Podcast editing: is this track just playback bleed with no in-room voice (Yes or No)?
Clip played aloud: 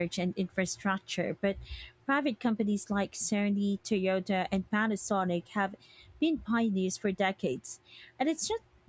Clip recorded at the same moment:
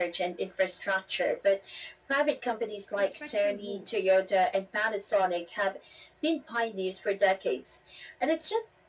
No